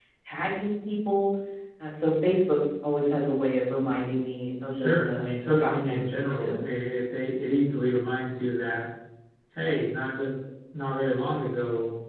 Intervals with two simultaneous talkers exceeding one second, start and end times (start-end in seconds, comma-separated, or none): 4.7-6.5